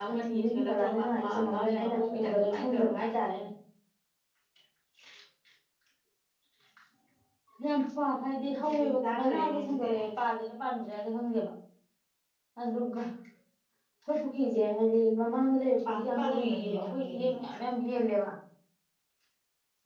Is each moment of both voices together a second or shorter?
No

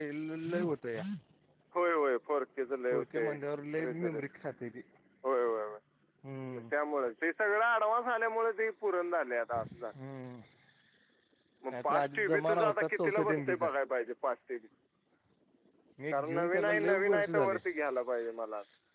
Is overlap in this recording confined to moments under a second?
No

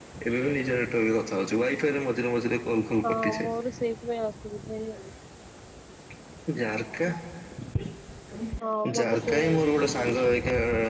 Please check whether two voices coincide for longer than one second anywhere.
Yes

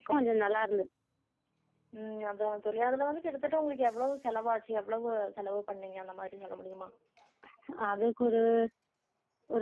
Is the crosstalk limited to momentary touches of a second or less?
Yes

